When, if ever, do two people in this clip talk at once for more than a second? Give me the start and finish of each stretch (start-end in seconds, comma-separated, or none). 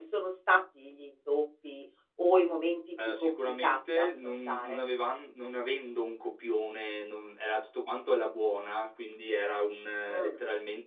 3.2-4.8